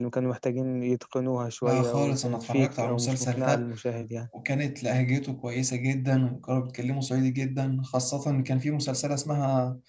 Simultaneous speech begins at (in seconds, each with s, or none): 1.6 s